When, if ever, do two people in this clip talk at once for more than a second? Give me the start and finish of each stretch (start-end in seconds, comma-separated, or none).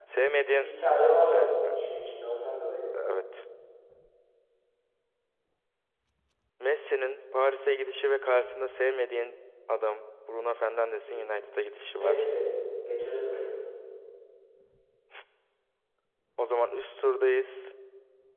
none